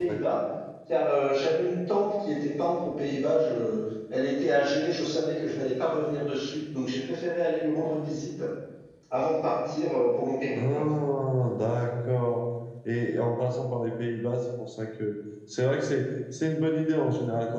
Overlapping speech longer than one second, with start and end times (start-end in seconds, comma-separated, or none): none